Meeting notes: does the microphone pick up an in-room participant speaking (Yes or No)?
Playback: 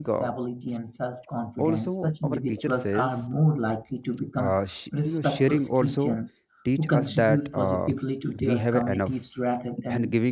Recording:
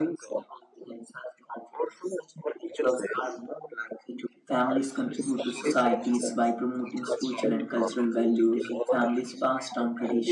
Yes